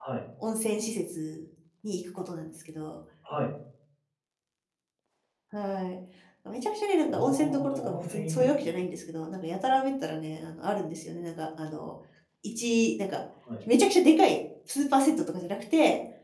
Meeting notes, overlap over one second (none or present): present